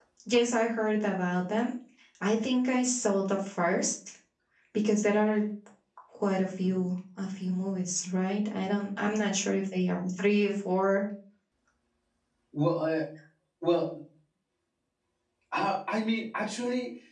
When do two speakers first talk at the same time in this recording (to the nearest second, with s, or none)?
none